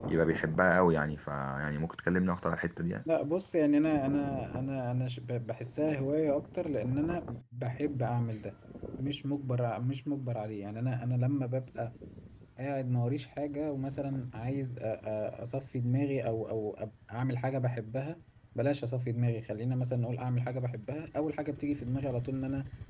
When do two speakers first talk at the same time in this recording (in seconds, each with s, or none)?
none